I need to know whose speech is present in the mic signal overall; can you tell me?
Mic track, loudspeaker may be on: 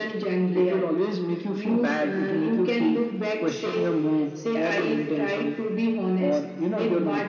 echo only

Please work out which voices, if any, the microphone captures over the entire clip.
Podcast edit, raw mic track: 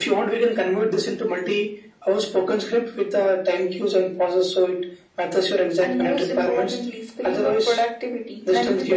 echo only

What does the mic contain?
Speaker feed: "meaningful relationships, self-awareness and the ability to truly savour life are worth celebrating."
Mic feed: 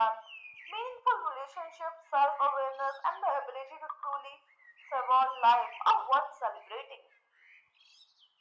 echo only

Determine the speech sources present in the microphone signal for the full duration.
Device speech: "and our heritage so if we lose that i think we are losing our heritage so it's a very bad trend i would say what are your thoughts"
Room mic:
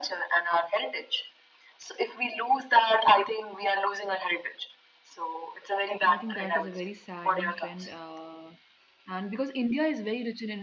both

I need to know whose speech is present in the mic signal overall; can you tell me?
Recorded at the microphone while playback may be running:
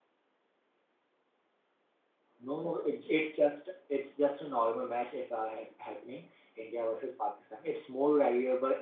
user only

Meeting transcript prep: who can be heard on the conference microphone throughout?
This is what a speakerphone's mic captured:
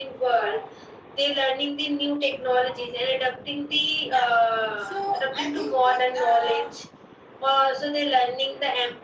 both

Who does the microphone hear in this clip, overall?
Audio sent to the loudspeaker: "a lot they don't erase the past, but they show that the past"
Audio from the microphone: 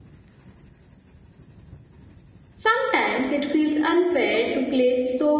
user only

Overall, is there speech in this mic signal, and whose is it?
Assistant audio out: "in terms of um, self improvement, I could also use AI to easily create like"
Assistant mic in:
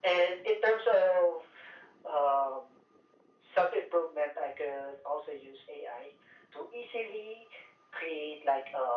echo only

